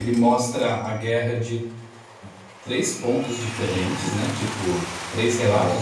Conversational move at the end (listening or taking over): listening